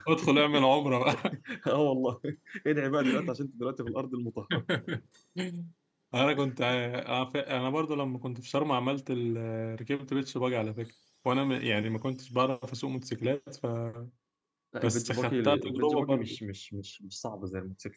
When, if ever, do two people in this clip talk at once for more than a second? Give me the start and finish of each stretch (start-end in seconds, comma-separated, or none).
14.8-16.4